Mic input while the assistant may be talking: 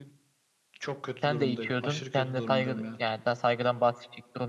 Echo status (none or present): present